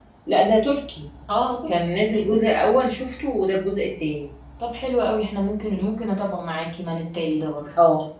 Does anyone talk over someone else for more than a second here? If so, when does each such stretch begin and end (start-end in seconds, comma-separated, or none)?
none